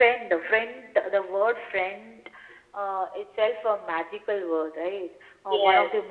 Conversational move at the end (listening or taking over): listening